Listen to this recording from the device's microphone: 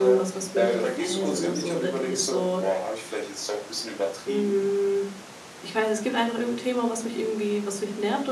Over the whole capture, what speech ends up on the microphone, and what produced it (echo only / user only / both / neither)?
both